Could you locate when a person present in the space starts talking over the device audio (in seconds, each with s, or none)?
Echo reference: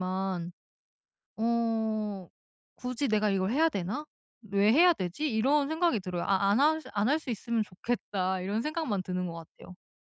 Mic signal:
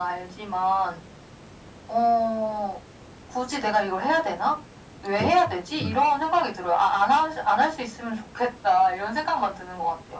5.1 s